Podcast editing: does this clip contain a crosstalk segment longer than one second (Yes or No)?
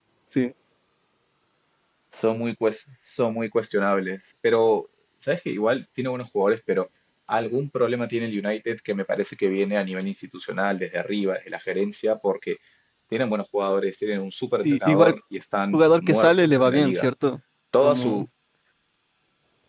Yes